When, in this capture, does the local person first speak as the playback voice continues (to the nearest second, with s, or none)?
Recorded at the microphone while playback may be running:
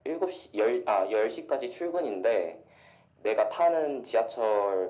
none